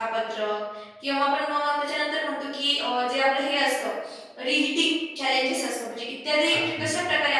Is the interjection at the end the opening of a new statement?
No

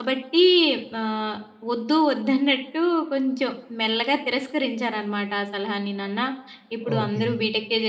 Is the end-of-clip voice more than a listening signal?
No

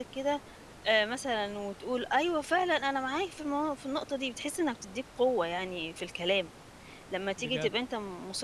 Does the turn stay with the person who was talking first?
Yes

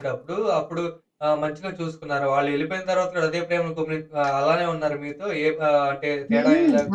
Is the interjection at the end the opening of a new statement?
Yes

